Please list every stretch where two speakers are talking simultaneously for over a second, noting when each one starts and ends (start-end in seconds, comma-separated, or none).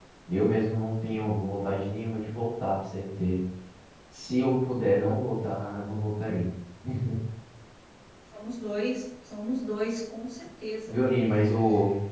none